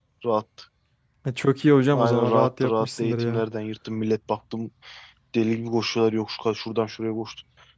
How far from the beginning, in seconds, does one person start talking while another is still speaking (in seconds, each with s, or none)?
1.9 s